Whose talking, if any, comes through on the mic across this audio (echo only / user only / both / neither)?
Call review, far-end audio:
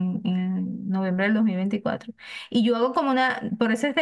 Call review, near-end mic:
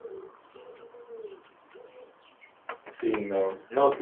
user only